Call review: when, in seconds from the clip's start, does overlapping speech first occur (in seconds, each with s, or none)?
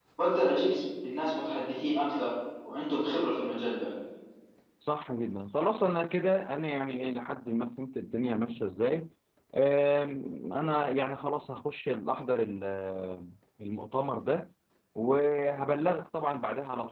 none